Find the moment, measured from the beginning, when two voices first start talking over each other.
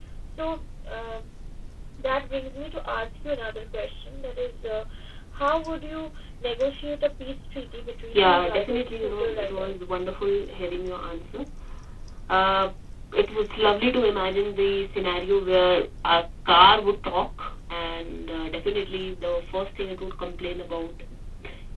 7.9 s

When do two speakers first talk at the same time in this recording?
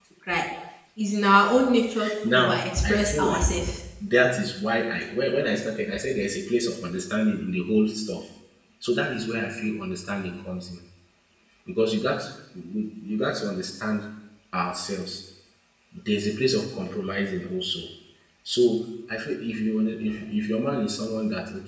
2.2 s

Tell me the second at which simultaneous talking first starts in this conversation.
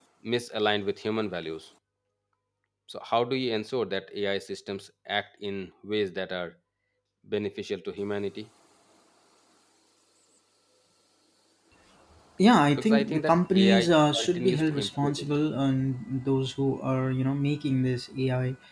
12.8 s

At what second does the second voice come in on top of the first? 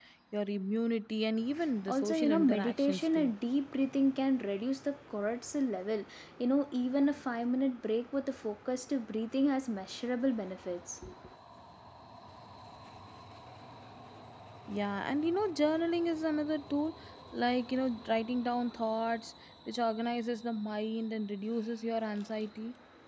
1.9 s

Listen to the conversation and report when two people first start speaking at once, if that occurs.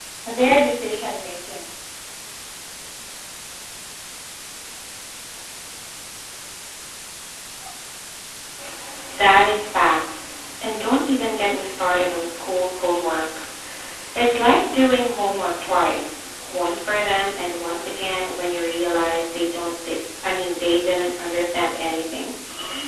none

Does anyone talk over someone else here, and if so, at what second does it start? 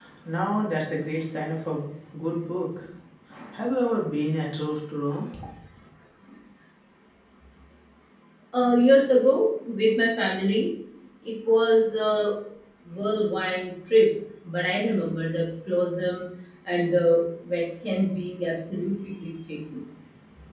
none

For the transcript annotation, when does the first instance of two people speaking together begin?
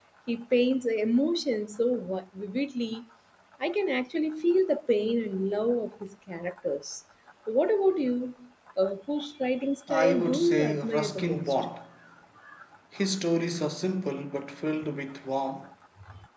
9.9 s

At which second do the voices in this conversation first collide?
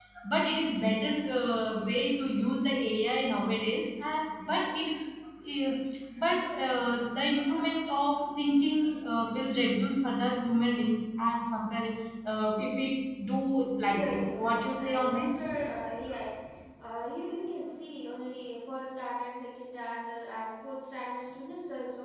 13.8 s

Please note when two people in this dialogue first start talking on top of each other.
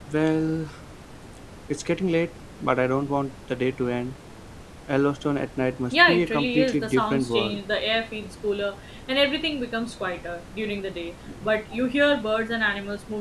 5.9 s

